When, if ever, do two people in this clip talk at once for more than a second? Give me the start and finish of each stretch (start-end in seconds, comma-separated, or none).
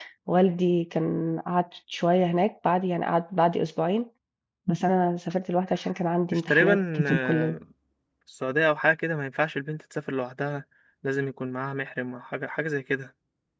6.3-7.6